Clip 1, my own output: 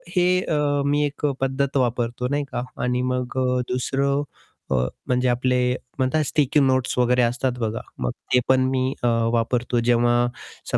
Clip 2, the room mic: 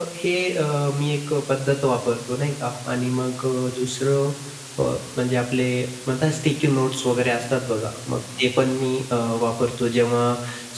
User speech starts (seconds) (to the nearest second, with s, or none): none